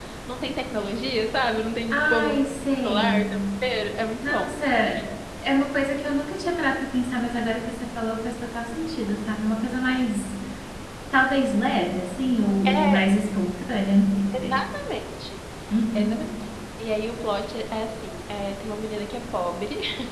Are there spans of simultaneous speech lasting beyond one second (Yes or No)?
No